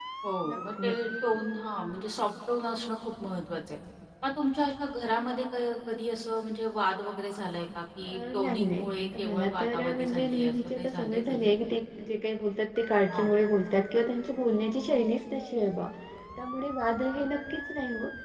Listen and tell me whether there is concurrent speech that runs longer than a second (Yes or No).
Yes